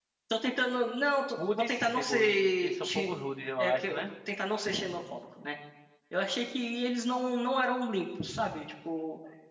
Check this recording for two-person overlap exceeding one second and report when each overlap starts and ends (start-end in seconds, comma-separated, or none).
1.4-3.1